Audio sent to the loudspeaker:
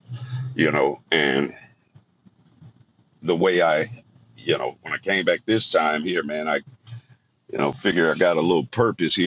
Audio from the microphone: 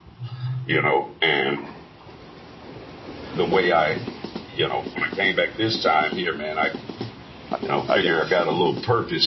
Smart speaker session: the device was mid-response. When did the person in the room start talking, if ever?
7.5 s

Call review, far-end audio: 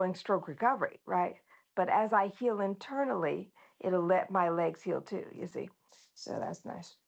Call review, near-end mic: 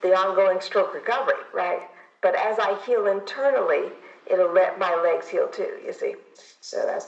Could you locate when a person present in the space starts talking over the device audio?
none

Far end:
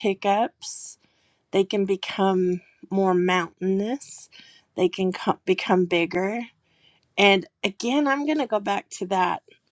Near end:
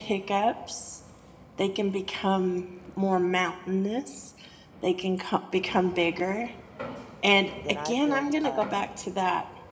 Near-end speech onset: 7.6 s

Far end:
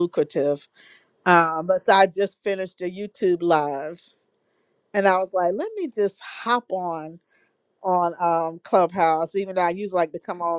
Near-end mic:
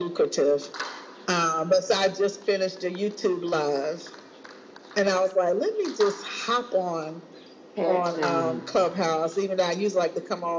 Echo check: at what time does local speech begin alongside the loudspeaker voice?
7.7 s

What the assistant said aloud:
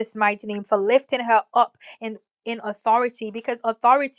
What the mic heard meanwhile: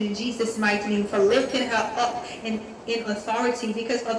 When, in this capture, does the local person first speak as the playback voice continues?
none

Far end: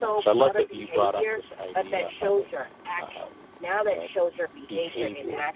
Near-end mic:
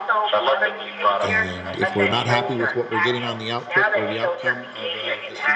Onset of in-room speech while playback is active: 1.2 s

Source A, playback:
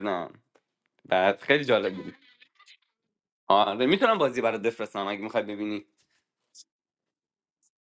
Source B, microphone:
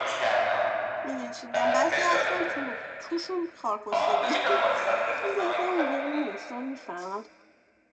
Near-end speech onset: 1.0 s

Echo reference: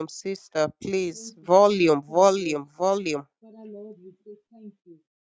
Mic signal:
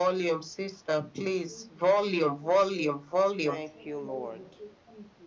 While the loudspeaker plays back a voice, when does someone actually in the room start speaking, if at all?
3.4 s

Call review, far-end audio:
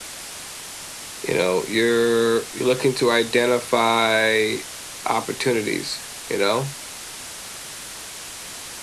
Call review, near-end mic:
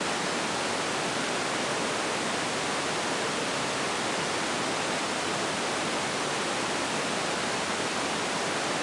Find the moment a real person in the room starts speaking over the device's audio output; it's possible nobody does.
none

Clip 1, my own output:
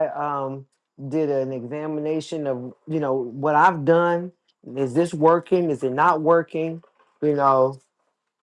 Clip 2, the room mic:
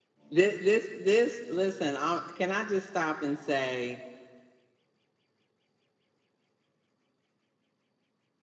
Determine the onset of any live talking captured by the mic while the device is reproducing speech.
0.3 s

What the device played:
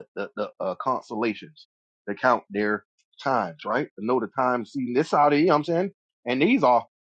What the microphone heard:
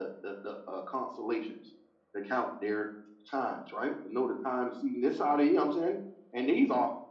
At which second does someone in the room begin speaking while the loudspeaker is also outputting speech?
none

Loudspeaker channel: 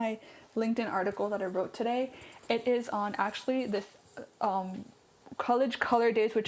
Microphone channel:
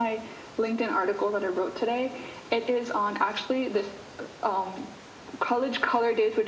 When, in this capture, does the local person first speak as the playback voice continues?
none

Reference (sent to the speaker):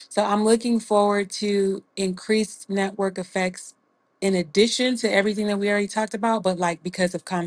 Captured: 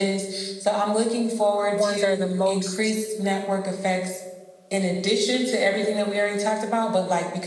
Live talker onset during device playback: 1.7 s

